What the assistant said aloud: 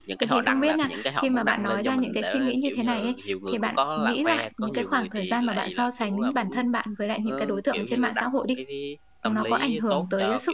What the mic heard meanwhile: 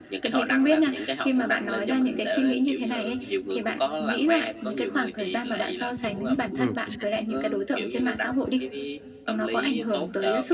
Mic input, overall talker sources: both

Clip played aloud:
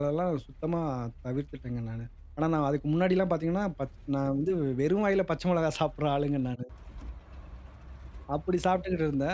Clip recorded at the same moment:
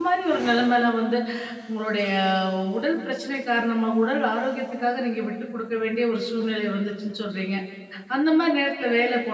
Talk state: user only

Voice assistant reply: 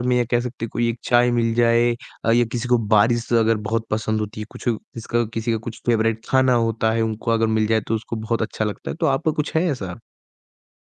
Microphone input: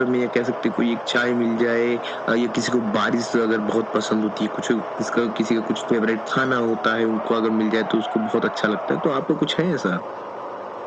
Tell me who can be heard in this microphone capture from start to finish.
echo only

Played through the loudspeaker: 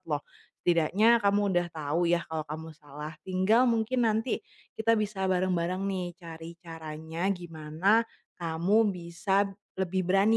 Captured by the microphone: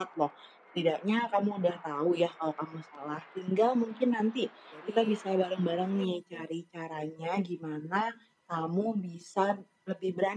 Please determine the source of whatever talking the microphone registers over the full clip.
both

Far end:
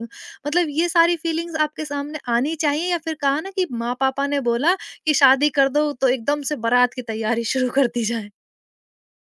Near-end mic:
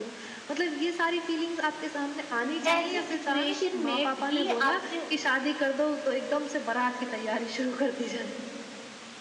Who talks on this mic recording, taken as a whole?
both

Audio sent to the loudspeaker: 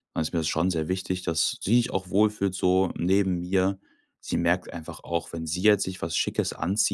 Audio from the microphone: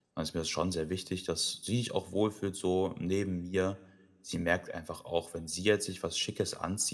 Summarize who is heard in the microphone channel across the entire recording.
echo only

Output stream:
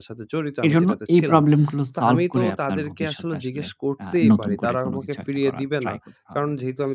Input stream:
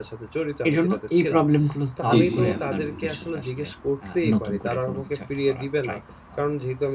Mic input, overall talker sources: both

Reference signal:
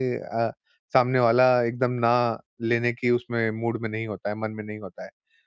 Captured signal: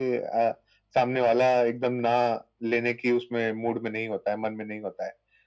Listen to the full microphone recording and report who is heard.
echo only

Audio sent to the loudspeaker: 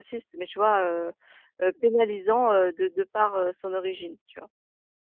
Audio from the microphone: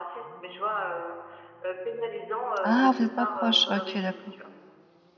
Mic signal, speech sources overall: both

